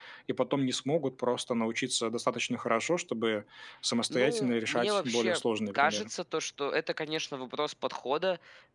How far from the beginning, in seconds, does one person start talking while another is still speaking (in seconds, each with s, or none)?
4.1 s